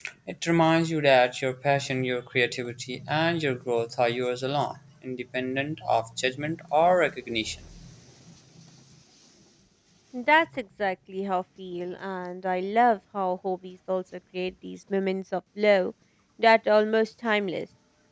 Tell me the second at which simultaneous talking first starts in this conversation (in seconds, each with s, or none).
none